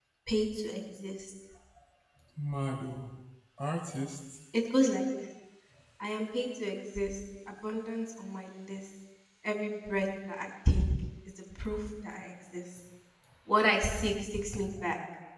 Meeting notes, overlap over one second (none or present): none